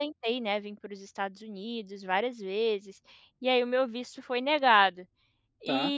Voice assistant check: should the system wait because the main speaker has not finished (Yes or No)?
Yes